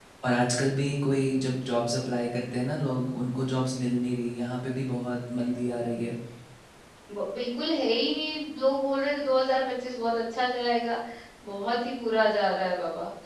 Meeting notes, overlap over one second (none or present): none